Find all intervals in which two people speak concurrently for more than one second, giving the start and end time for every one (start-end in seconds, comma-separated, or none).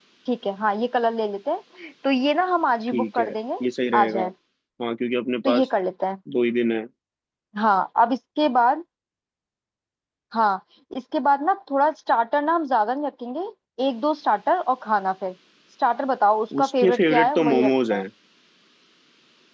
16.6-18.0